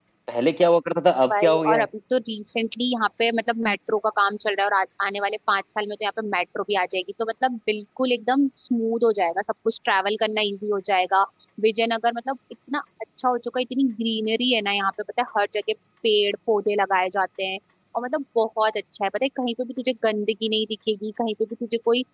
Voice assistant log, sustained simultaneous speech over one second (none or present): none